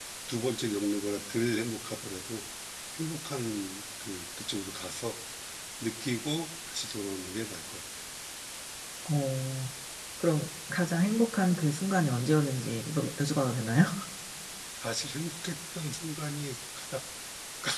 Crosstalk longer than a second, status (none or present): none